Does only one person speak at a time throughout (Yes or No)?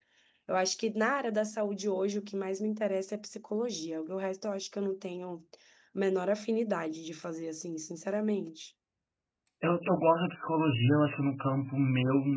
Yes